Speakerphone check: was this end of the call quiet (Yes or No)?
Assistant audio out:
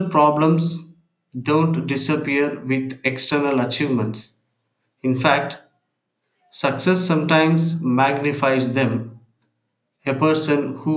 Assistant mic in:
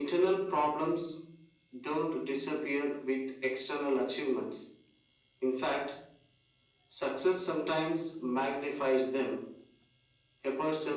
Yes